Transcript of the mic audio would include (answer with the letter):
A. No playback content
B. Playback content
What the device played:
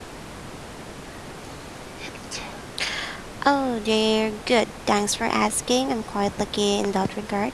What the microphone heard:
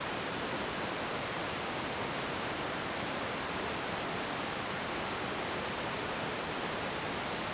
A